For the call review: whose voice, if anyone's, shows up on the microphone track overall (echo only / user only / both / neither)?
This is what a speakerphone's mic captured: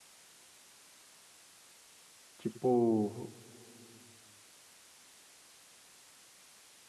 user only